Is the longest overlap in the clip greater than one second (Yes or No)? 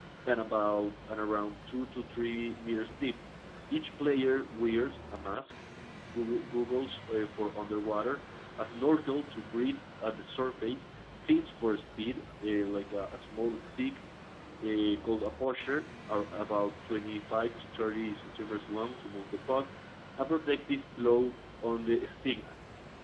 No